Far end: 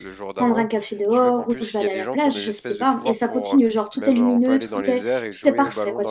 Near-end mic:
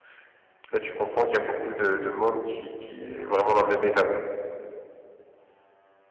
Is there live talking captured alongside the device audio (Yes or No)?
Yes